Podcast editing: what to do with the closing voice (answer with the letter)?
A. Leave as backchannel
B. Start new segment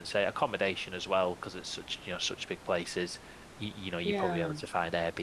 A